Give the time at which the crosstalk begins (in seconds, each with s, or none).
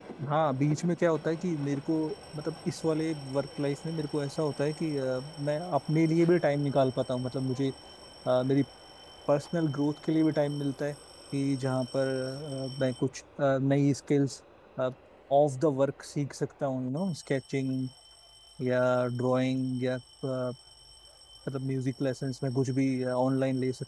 none